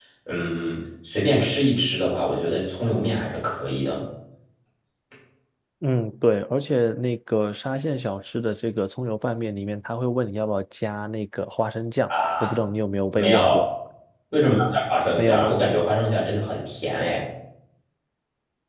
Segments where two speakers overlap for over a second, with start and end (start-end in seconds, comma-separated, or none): none